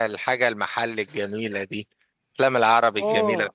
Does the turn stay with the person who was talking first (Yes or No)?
No